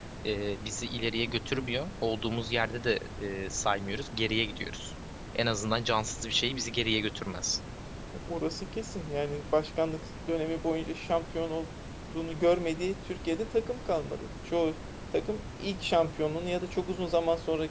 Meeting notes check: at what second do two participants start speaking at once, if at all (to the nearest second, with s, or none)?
none